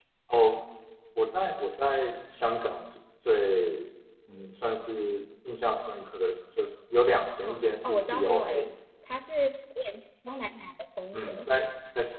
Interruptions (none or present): present